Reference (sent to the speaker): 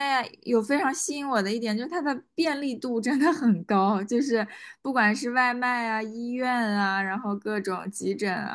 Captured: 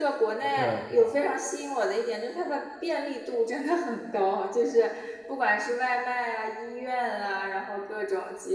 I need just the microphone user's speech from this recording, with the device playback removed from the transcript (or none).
对对，